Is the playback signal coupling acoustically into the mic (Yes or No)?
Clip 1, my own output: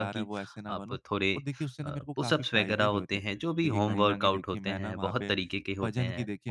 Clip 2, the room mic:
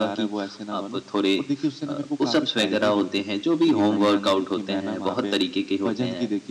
Yes